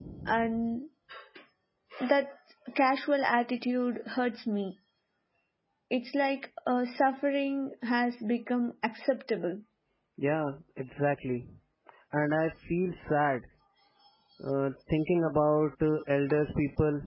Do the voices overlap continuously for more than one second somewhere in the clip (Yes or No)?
No